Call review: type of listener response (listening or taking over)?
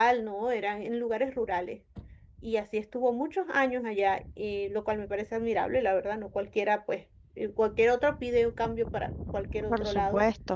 taking over